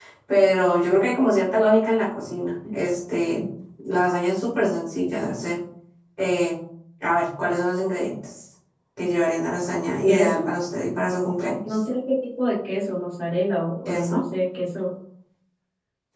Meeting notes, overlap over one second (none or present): none